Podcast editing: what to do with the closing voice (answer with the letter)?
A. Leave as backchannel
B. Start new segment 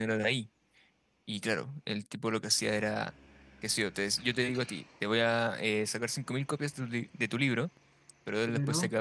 A